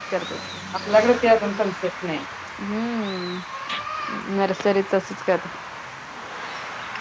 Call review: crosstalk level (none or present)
none